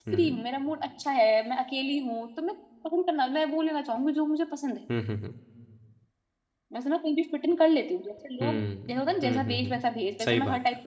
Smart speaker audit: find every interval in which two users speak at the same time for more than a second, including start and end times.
8.4-9.8

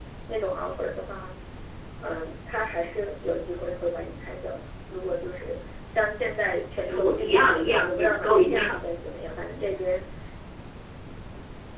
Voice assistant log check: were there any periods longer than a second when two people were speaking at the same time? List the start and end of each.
6.8-8.8

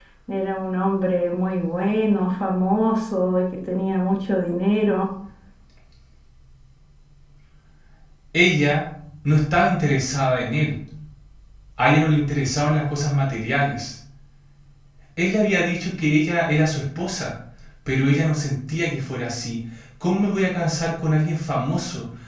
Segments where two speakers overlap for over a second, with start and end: none

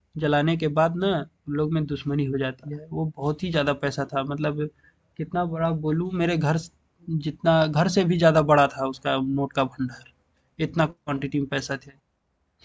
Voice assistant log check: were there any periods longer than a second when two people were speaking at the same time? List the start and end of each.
none

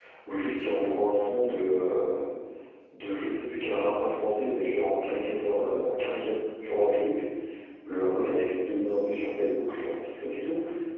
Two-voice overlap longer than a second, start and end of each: none

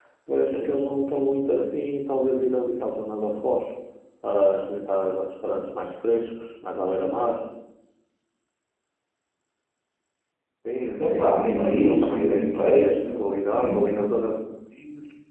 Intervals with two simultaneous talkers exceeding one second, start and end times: 11.0-13.0

